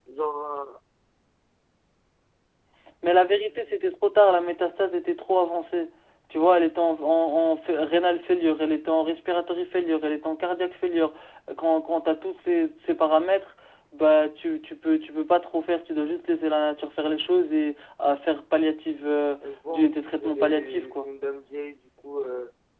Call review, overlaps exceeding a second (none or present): present